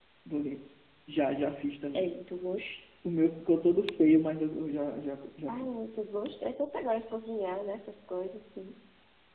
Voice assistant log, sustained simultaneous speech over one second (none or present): none